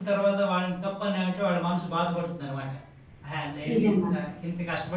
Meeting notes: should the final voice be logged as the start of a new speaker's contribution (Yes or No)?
No